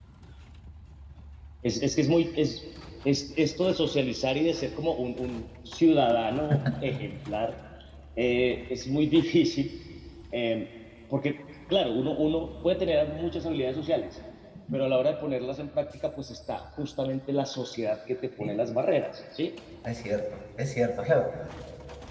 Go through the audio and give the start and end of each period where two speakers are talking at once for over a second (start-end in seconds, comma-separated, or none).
none